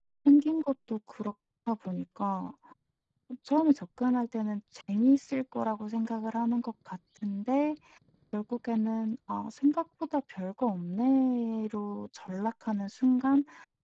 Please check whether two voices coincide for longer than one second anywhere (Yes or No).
No